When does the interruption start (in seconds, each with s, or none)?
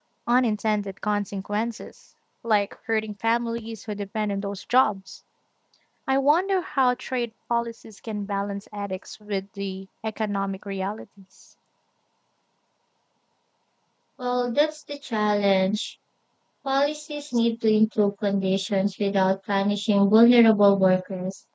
none